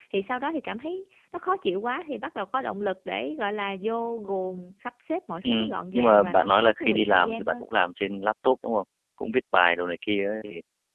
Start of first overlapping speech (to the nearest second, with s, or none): 5 s